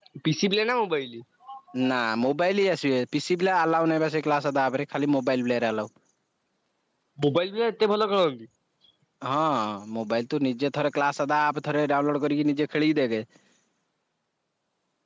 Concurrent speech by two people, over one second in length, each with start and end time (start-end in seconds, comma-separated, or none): none